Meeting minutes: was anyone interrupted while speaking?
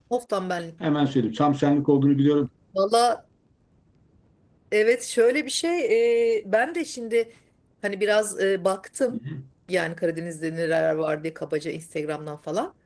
No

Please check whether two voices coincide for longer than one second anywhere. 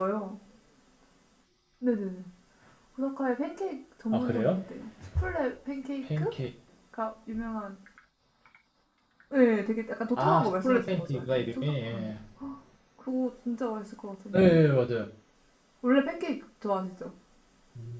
Yes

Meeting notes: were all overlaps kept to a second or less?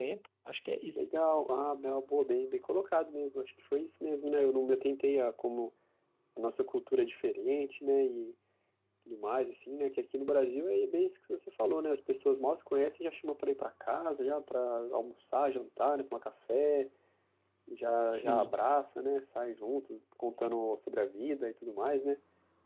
Yes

